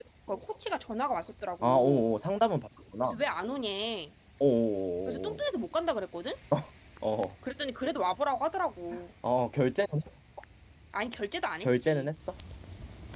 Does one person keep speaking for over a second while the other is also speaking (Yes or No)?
No